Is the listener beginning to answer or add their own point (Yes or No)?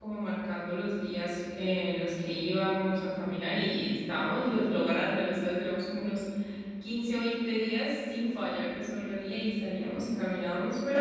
No